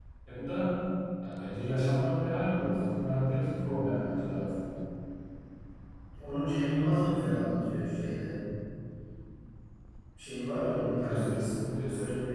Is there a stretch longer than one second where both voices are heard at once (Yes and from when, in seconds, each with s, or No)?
No